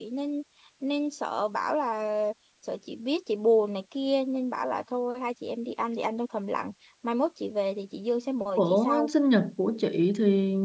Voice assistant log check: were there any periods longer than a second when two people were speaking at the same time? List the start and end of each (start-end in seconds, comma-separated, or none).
none